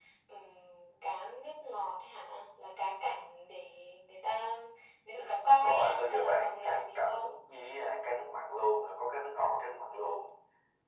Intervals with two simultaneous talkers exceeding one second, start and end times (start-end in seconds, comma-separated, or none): 5.6-7.4